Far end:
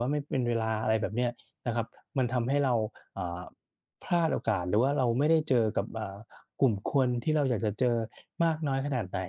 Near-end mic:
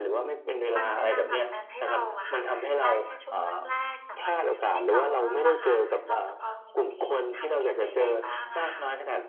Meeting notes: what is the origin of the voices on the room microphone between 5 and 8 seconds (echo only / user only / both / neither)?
both